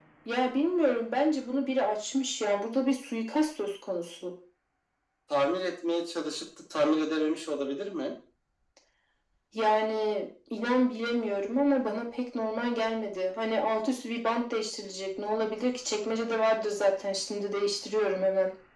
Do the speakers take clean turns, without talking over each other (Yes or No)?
Yes